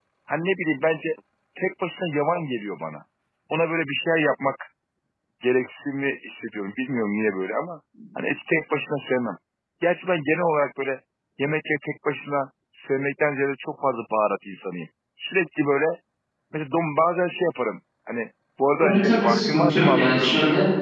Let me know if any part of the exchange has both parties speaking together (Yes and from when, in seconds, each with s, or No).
Yes, from 18.8 s